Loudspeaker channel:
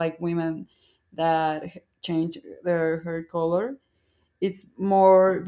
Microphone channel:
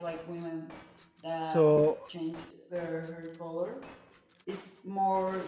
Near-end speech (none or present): present